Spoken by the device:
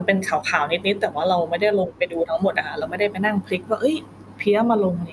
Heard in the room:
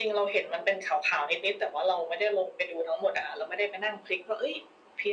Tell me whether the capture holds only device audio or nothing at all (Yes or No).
Yes